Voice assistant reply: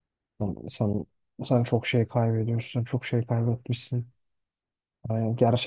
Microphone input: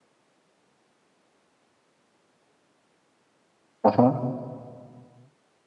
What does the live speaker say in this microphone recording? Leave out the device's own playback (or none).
Aha.